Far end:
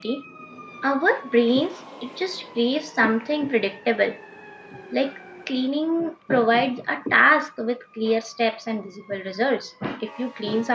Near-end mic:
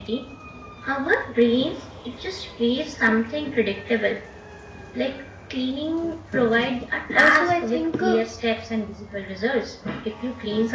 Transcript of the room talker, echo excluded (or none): Also, I think uh,